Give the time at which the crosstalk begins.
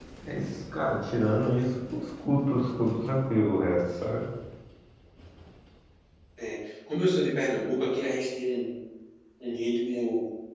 none

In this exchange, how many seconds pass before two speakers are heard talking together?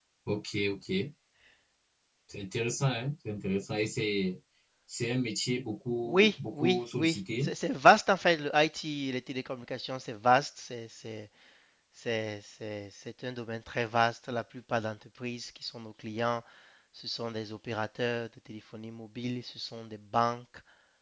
6 s

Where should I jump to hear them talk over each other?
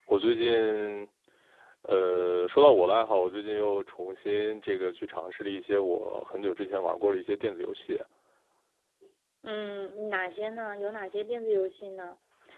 none

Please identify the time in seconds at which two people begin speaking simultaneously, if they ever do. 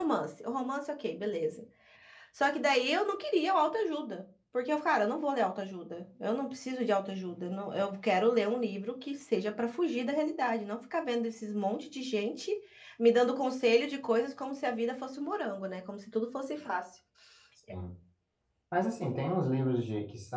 none

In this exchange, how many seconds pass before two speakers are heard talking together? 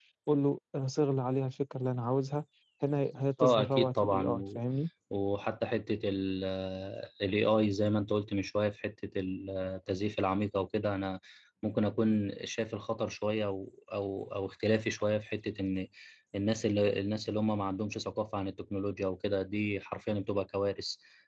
3 s

